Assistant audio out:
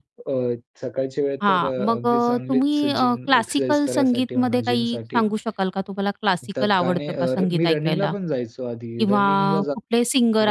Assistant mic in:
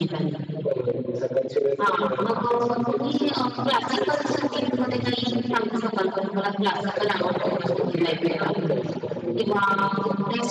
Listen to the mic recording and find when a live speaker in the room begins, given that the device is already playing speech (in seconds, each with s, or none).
none